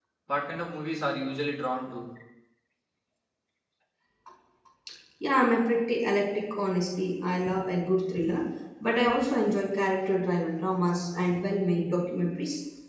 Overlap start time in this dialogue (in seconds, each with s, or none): none